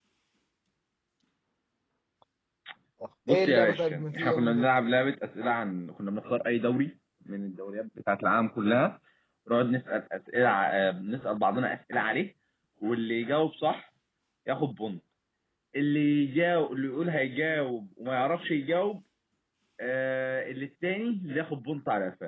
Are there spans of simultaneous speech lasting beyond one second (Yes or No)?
Yes